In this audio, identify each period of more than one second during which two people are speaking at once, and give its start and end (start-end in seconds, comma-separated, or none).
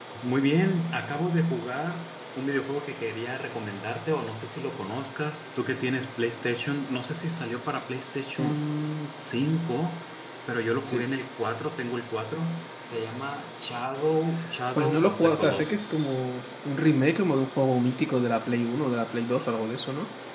14.8-16.2